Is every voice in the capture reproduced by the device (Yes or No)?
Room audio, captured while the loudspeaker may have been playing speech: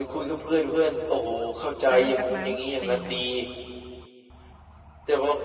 No